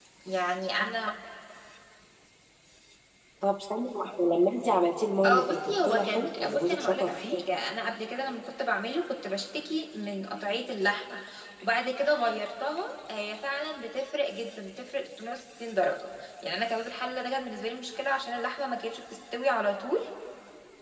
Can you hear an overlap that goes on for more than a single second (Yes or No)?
Yes